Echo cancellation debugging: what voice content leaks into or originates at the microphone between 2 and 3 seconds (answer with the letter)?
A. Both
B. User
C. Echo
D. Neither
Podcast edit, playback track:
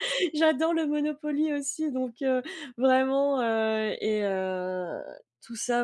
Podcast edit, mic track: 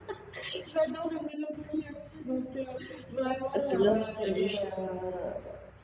C